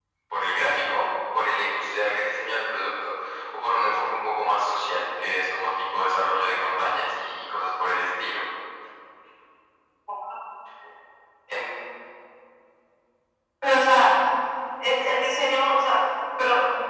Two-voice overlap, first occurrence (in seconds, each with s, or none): none